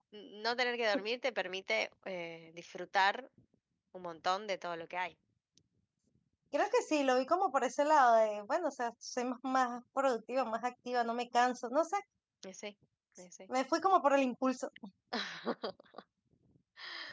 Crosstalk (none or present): none